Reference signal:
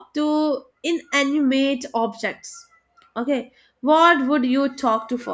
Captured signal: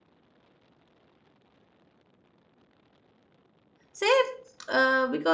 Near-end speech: present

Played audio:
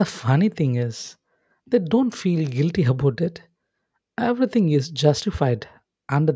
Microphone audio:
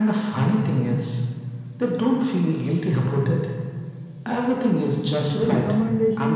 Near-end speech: present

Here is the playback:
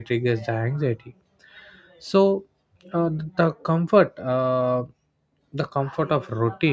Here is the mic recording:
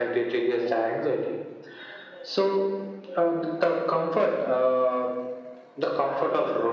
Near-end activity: none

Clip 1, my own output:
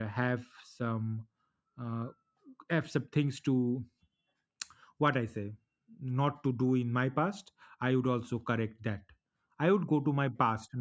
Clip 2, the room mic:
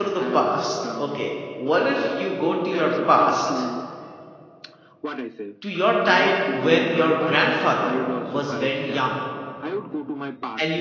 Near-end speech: present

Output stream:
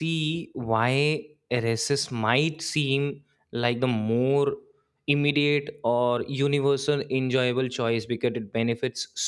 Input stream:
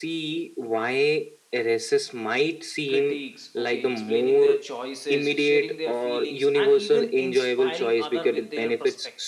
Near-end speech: present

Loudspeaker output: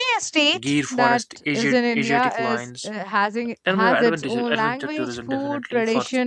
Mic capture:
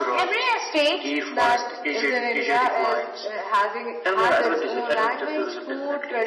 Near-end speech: none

